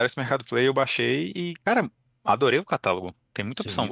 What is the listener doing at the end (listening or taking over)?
taking over